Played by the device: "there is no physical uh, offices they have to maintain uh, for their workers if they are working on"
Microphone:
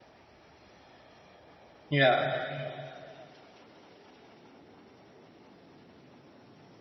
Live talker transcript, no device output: Yeah,

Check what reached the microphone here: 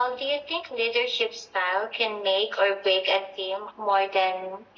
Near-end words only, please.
none

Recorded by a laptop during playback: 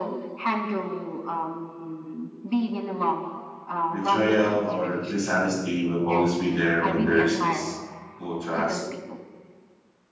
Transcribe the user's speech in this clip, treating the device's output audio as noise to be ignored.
betrayal or dishonesty will always be there when there is this low trust.

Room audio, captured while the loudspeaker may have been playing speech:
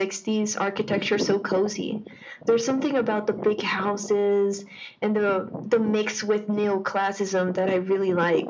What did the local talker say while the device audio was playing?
none

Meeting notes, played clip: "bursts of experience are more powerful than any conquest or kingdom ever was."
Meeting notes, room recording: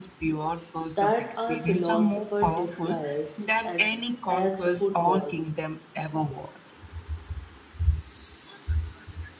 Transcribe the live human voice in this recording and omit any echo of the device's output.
that are philosopher disguised at, as footballs,

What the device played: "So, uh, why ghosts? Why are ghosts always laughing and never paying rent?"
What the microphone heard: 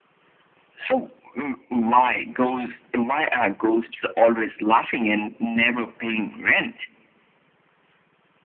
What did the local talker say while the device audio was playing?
none

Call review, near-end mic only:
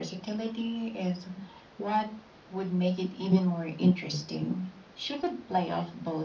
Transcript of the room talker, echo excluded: none

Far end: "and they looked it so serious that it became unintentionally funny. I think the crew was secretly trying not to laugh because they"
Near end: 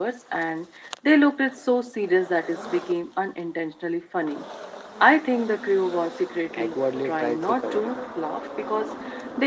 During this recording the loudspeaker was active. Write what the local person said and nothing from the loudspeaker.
awkwardly tried to cover it.

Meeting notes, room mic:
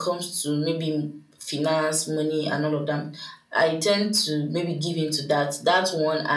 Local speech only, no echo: none

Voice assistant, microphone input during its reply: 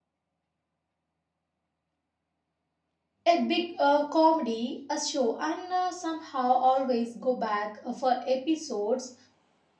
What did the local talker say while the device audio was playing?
a big uh, comedy a show and uh, somehow always go back uh, for episodes

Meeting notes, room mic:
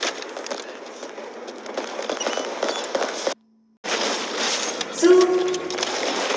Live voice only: So,

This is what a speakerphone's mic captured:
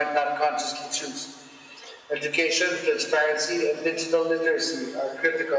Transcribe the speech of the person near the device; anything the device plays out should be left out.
none

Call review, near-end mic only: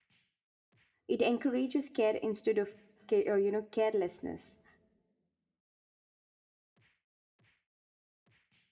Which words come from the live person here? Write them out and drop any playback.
It encourages care instead of, ca- uh, you know, carelessness.

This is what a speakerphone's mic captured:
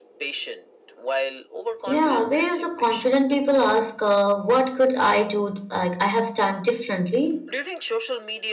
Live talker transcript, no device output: Yeah, whereas the confident people ask, uh, what could I do? Like, I have done differently.

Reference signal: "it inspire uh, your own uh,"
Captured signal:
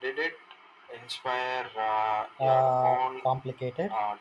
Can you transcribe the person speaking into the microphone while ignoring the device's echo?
uh, complicated?

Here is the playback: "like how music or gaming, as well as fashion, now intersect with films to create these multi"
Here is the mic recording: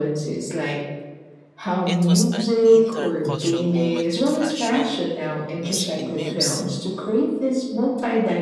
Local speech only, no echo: It was an entire cultural moment with fashion, music, and memes,

